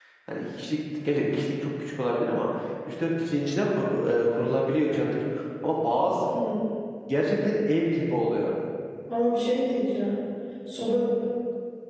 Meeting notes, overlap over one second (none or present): none